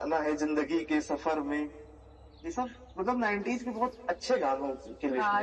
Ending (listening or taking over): taking over